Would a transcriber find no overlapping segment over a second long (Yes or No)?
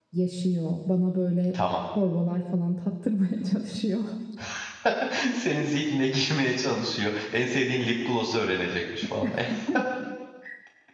Yes